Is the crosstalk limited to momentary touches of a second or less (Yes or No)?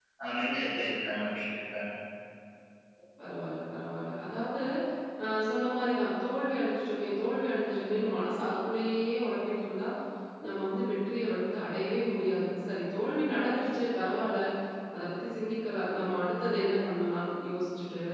Yes